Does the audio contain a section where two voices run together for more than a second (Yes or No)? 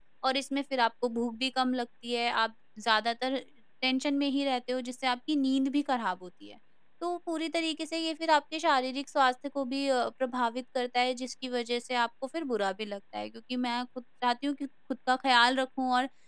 No